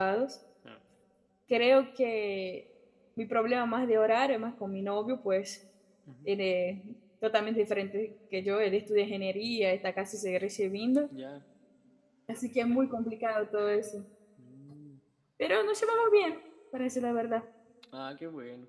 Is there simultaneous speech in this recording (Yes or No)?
No